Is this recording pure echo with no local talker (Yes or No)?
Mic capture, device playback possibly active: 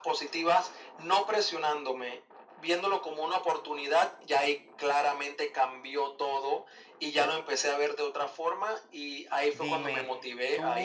No